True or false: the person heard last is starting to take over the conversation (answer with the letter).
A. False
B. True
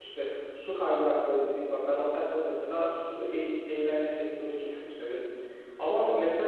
A